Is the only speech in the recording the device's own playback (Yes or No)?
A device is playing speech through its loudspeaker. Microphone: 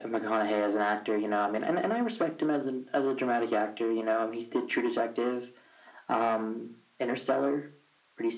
Yes